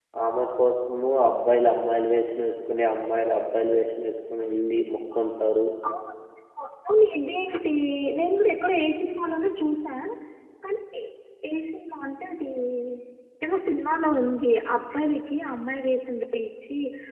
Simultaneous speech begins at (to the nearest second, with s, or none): none